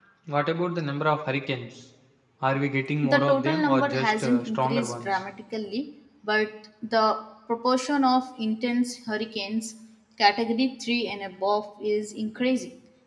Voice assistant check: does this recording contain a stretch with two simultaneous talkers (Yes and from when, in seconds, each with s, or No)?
Yes, from 3.0 s